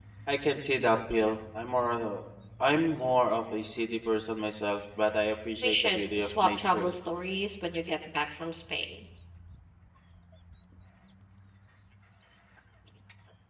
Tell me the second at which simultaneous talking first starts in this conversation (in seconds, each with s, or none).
5.6 s